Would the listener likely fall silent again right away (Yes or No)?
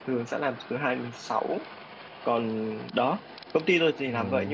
Yes